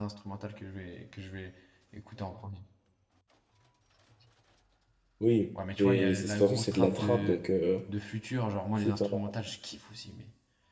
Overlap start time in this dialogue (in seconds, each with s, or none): 5.5 s